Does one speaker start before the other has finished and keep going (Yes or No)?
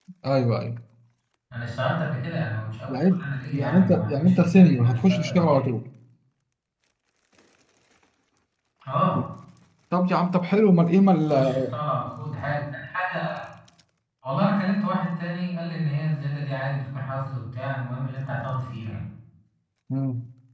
Yes